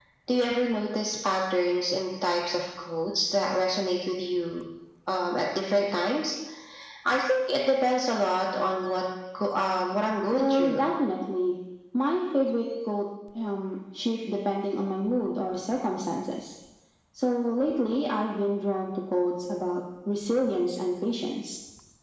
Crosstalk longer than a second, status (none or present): none